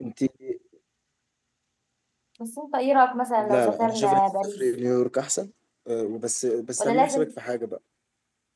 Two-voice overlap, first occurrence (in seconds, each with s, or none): 3.4 s